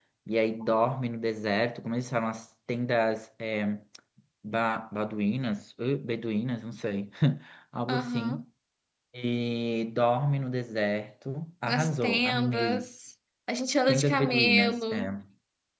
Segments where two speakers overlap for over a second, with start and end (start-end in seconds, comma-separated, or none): 11.7-12.9, 13.9-15.1